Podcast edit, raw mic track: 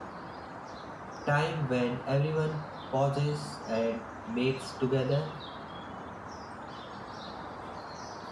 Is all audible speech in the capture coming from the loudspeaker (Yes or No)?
No